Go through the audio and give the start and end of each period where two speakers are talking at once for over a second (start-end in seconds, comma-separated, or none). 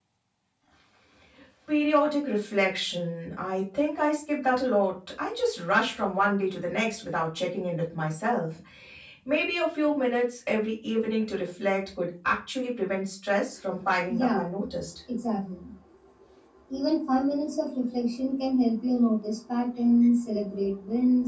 none